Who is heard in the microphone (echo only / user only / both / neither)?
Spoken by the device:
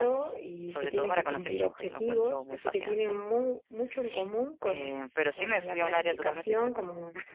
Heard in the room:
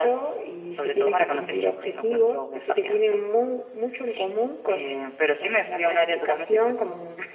echo only